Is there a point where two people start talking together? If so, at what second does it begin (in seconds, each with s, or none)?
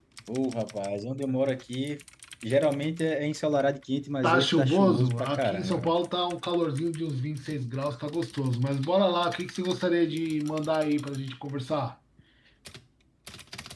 4.2 s